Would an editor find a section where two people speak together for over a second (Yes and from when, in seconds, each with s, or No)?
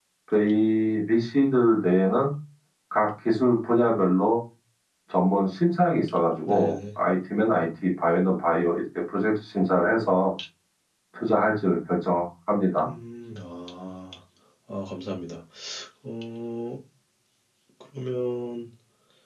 No